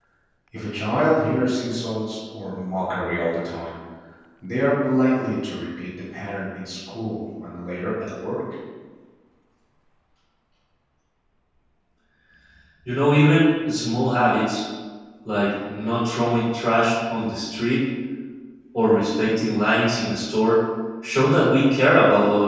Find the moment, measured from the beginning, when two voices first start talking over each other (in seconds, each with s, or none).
none